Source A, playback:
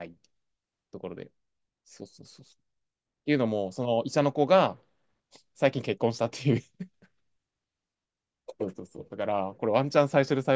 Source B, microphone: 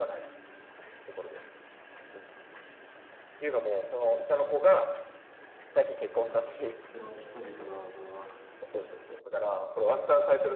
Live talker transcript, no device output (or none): その、その人々の、その、